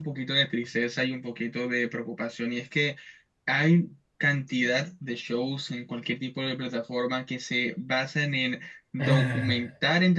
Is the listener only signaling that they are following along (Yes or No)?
Yes